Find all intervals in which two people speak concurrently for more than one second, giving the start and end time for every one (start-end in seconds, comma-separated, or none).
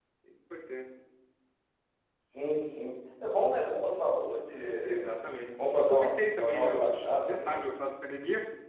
5.6-7.6